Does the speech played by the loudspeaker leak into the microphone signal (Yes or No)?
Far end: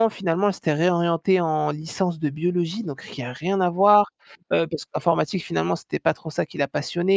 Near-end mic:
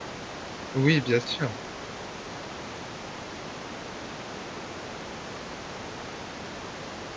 No